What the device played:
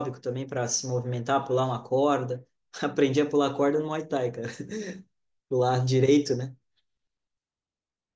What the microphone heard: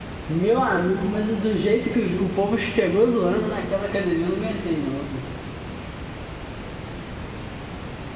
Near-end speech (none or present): present